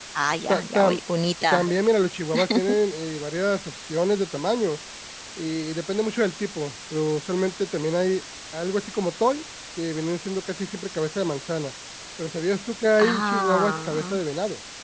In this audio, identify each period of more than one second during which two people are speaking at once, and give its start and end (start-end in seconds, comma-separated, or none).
13.0-14.2